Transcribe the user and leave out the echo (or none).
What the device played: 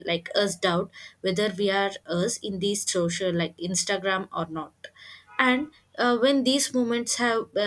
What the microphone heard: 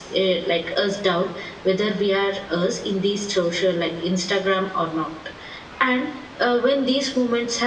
none